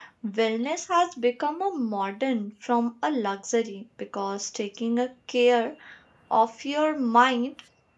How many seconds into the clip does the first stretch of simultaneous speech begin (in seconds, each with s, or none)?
none